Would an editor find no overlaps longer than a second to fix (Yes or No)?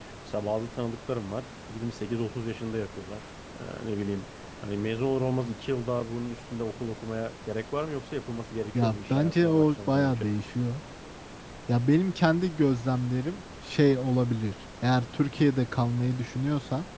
No